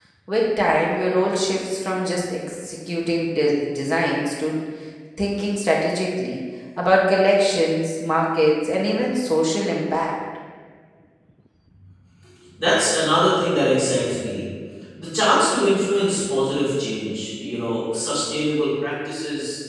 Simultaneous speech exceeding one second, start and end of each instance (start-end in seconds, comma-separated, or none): none